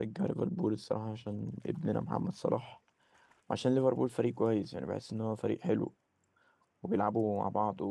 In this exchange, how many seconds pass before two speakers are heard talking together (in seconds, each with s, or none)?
none